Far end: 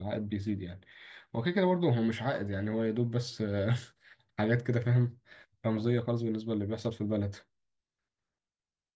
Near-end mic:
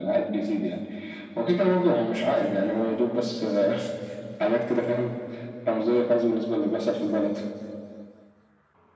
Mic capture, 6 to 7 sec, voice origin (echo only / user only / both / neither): echo only